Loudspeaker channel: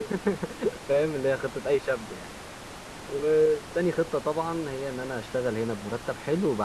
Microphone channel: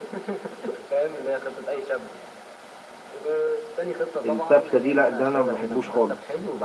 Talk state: both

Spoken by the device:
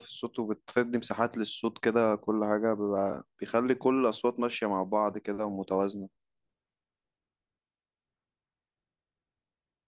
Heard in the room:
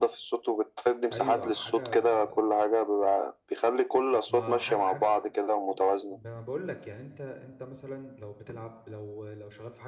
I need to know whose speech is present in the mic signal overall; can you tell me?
both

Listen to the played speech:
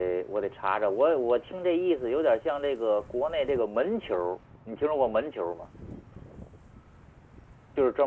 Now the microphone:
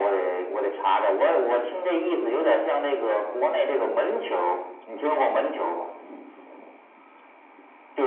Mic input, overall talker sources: echo only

